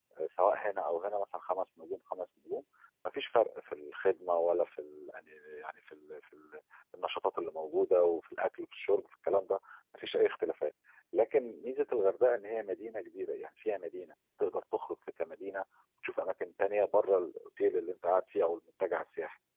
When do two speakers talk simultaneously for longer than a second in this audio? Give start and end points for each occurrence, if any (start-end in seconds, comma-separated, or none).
none